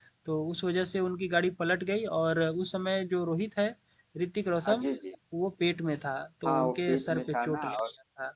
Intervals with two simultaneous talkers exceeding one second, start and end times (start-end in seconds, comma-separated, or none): 6.5-7.8